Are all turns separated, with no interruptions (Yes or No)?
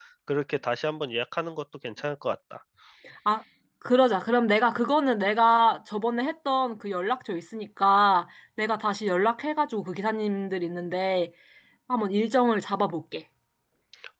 Yes